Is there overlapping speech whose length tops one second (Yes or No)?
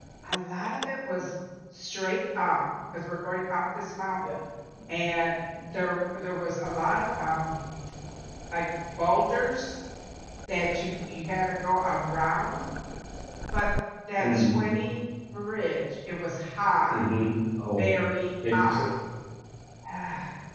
No